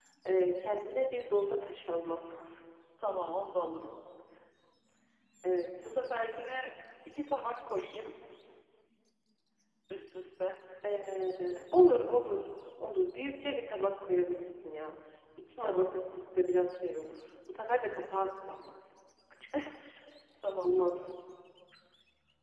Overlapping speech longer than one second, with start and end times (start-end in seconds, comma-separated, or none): none